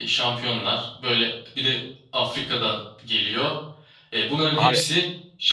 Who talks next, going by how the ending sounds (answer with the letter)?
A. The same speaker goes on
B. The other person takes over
A